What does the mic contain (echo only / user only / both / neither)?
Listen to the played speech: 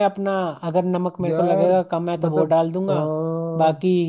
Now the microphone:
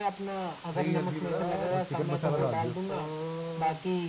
both